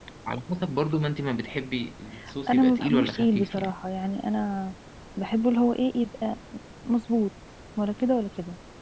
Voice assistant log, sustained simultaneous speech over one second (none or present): present